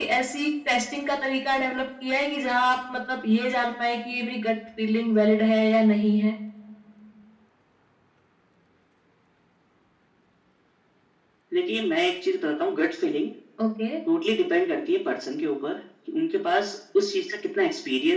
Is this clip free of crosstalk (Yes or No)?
Yes